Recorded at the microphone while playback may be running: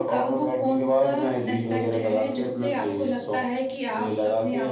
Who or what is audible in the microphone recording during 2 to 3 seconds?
echo only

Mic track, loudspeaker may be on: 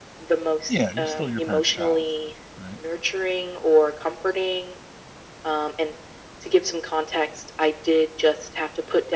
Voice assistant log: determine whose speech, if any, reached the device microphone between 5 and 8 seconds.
echo only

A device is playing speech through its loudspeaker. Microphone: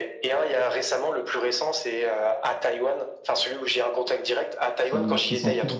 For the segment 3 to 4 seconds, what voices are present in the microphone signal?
echo only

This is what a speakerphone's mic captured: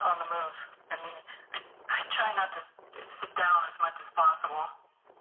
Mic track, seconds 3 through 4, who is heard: echo only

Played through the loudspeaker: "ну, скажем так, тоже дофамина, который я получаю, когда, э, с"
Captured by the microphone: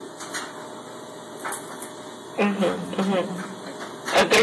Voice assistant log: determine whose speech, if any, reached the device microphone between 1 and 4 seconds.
user only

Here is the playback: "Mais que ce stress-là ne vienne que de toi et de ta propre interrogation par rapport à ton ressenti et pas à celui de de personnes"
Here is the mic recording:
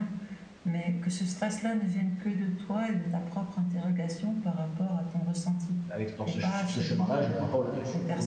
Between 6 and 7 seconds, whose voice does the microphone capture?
both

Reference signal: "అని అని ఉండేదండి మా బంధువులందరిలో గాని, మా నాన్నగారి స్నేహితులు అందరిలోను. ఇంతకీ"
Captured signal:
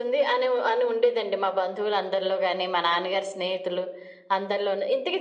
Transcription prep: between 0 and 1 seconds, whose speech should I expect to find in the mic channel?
echo only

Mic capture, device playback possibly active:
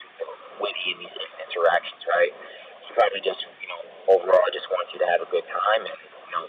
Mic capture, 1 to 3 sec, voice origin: echo only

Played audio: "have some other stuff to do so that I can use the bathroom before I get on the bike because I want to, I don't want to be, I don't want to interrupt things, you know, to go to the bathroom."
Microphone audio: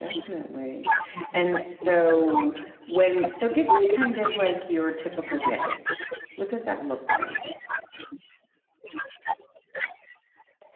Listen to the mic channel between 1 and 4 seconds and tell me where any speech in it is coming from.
both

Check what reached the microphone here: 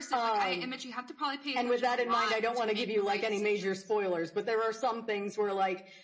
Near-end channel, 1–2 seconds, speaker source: echo only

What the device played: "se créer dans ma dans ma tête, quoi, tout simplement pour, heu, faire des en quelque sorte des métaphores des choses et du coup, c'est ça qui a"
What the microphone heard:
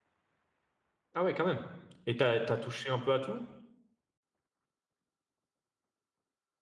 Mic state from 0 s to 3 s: user only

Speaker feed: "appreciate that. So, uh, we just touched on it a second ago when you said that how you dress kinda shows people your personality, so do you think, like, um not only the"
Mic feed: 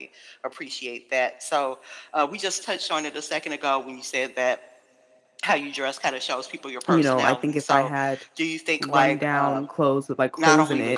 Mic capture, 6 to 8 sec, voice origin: both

